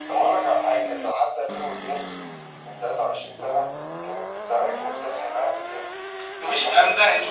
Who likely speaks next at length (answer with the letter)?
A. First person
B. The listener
B